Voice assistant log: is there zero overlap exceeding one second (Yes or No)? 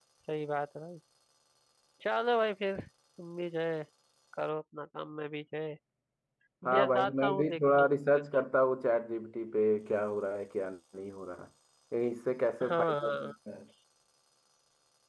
No